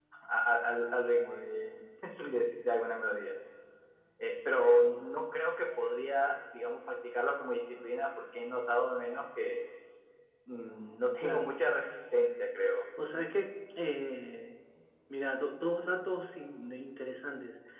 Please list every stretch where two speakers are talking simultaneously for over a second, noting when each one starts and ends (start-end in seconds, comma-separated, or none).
none